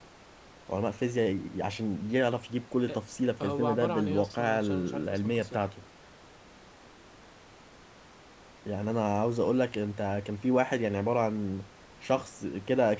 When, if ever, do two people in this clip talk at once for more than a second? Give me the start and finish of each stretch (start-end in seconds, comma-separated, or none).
3.4-5.6